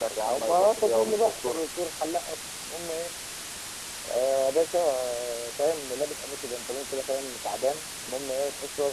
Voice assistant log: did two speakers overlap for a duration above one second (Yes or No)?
Yes